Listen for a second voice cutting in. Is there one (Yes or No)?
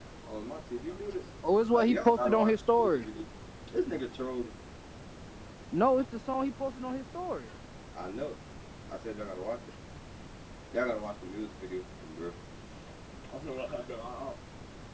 Yes